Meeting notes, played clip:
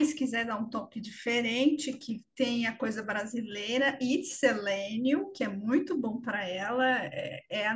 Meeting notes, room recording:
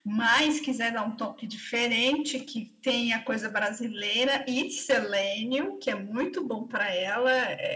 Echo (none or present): present